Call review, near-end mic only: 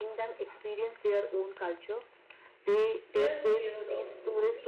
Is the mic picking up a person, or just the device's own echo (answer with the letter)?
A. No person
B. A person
B